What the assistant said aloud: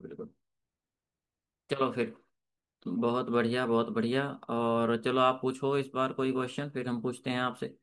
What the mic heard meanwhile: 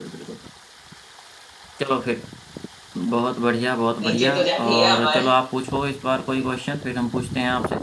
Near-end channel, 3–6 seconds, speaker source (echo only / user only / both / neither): both